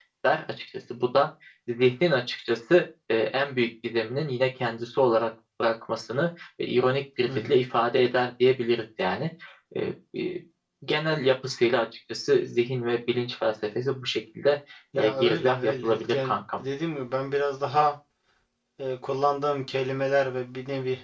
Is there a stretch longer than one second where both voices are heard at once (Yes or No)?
Yes